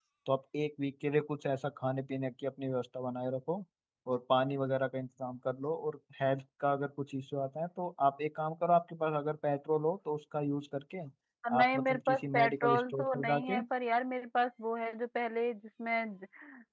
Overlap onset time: 11.6 s

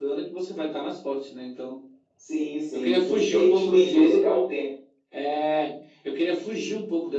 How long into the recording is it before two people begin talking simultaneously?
2.7 s

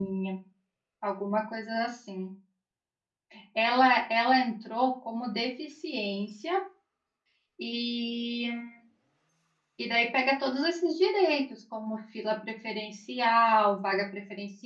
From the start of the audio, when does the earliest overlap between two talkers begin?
none

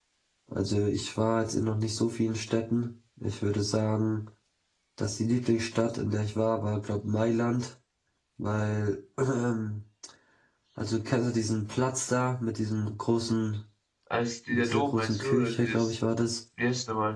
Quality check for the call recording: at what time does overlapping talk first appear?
14.5 s

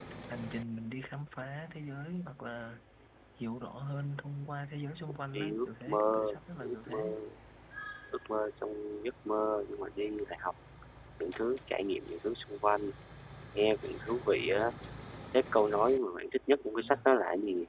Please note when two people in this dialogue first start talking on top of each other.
5.3 s

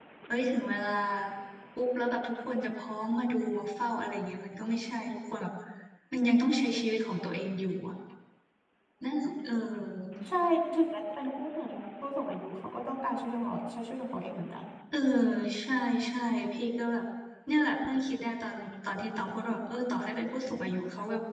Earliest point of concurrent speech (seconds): none

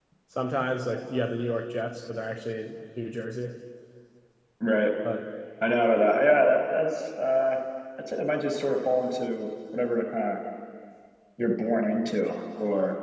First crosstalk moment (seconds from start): none

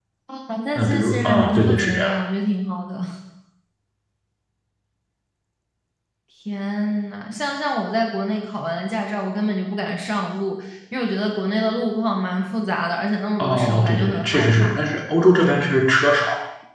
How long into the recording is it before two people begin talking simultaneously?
0.8 s

